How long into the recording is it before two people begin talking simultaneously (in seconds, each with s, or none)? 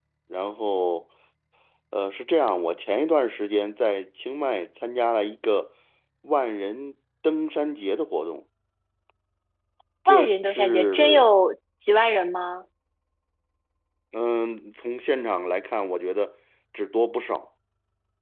10.1 s